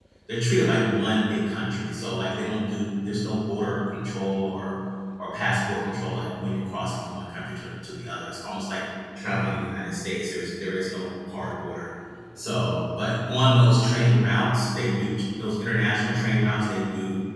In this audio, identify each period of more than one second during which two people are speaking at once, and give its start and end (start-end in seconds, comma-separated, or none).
none